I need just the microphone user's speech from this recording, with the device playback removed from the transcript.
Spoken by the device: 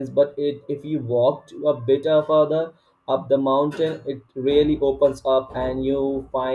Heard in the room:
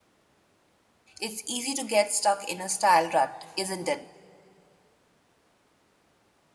It's easy to get stuck in a style rut, isn't it?

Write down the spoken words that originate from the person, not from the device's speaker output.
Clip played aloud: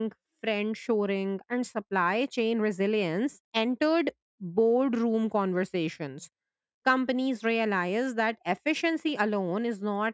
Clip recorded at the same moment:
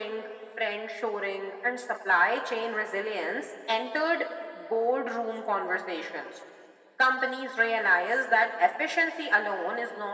none

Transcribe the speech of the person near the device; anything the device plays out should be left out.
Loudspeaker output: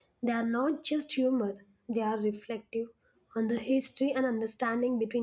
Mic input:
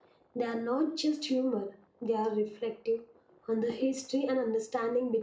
none

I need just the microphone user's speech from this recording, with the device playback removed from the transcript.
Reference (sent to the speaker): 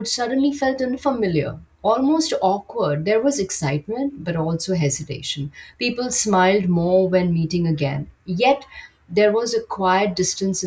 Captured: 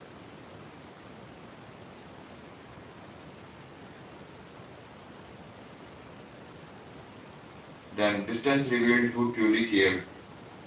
them. Distance revealed who truly cared

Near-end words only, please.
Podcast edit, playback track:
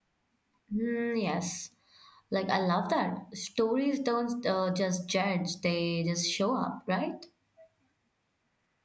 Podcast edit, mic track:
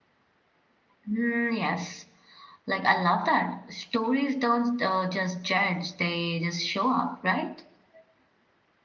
none

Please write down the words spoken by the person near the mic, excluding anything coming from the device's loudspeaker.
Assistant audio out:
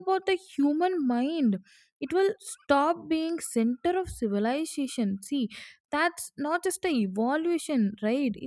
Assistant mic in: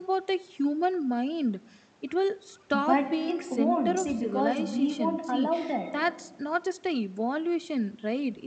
But it won't, see, because we won't allow that.

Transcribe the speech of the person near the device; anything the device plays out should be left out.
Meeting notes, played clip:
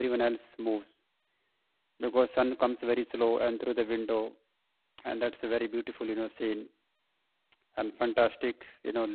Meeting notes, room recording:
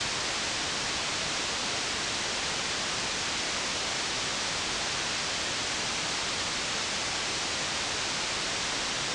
none

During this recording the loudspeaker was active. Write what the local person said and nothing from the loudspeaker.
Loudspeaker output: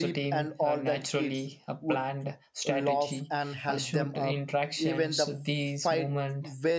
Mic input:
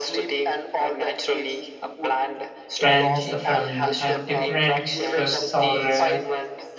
friends uh, from a different stress or uh,

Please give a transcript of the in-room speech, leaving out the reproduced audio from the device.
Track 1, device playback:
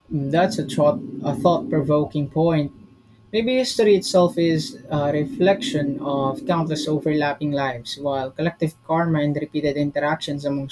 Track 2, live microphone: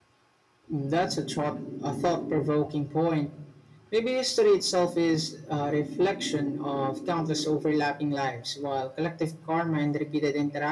none

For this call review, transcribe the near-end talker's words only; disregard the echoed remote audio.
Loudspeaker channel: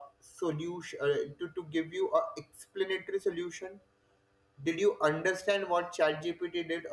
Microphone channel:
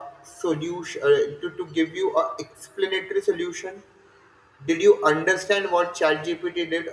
none

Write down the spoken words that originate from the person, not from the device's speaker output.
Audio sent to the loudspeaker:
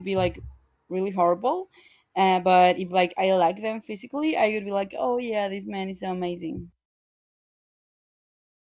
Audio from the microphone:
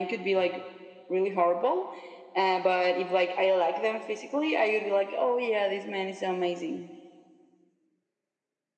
none

